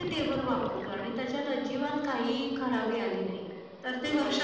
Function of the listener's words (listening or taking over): taking over